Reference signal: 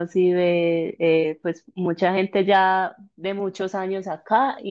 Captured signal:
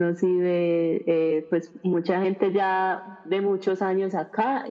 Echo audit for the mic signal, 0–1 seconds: echo only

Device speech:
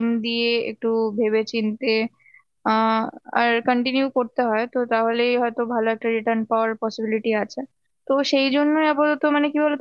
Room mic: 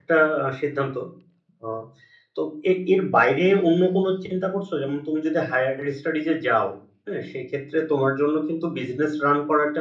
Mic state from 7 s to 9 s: user only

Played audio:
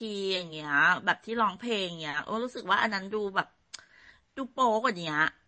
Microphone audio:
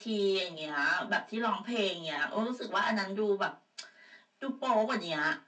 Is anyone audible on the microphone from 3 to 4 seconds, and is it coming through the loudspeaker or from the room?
echo only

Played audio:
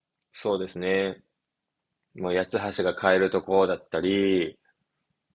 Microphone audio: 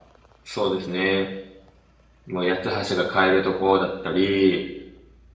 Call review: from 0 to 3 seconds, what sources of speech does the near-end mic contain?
echo only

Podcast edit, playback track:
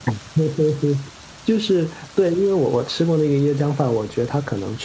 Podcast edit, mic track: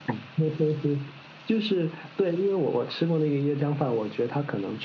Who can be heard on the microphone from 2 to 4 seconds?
echo only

